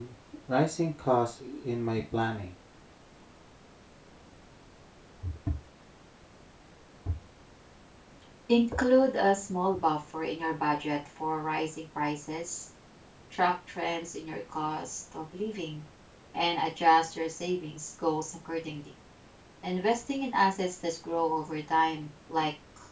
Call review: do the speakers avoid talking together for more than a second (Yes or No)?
Yes